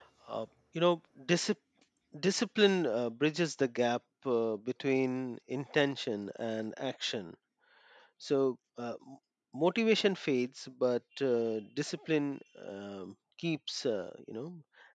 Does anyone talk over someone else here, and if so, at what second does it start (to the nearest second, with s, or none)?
none